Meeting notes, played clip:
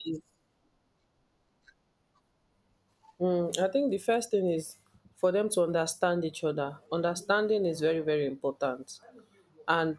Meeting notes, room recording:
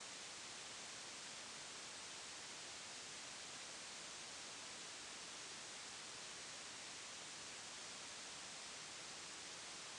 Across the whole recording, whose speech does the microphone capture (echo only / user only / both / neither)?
neither